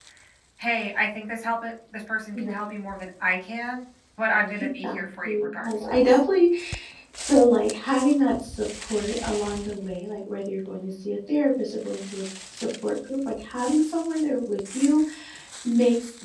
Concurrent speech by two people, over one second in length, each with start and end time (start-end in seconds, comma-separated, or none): 4.6-6.2